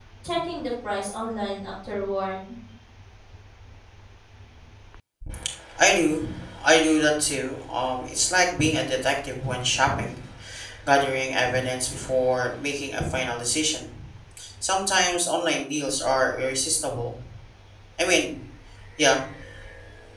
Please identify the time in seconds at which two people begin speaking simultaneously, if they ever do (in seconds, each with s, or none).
none